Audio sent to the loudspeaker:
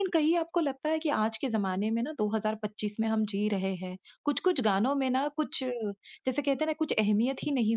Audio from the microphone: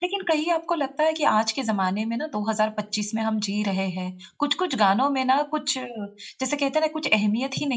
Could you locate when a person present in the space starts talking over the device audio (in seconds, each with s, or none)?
none